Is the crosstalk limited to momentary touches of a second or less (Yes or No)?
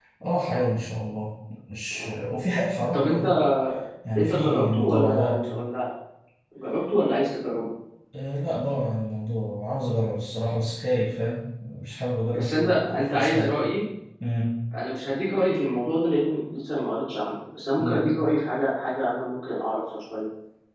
No